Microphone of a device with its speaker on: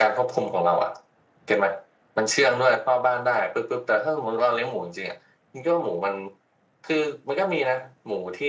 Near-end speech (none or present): none